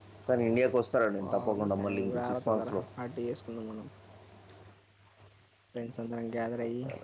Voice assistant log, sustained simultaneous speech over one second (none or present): present